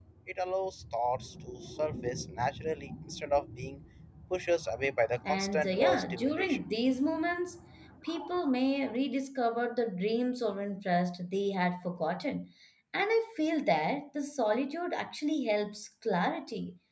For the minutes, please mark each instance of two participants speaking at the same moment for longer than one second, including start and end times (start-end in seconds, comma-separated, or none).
5.3-6.6